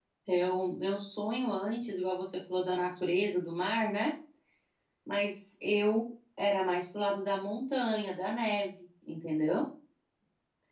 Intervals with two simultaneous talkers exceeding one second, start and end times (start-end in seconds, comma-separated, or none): none